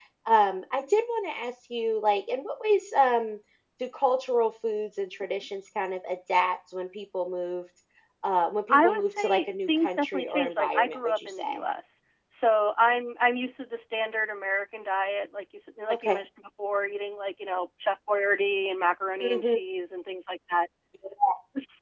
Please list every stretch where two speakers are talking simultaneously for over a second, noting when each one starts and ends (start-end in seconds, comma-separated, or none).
8.7-11.6